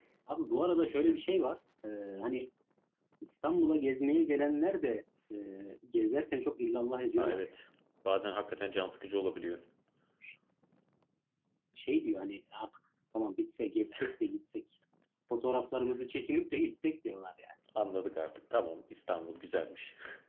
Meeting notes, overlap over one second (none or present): none